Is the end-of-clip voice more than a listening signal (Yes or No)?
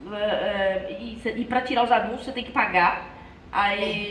No